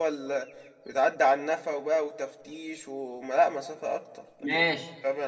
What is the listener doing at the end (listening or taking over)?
taking over